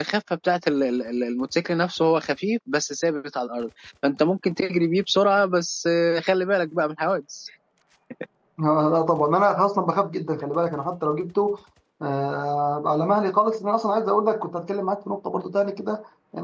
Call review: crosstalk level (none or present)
none